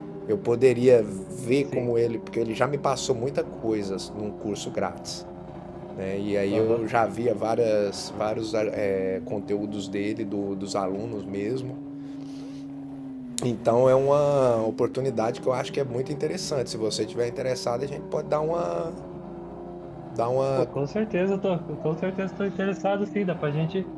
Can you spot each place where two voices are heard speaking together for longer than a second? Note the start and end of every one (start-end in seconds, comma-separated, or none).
none